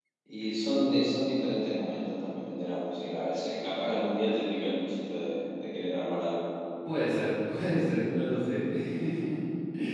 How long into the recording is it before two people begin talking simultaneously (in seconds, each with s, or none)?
none